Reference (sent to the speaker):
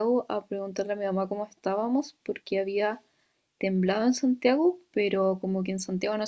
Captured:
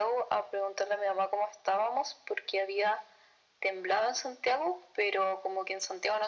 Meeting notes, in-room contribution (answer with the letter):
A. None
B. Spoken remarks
A